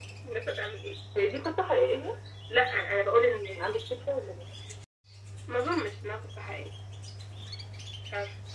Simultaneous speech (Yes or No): No